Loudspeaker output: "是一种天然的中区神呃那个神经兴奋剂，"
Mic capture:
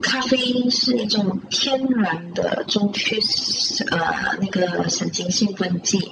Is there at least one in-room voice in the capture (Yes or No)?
No